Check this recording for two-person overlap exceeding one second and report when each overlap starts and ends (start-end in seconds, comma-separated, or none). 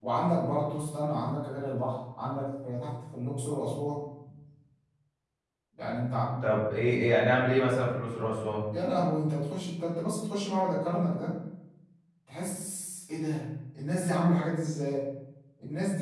none